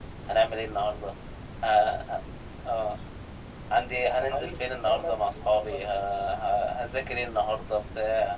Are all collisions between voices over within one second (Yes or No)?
No